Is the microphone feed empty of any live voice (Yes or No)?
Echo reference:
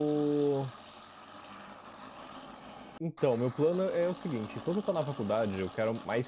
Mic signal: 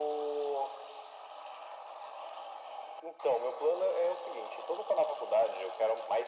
Yes